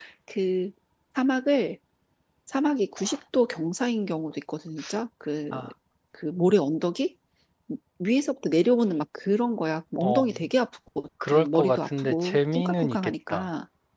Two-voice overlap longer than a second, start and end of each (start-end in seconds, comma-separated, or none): 11.3-13.5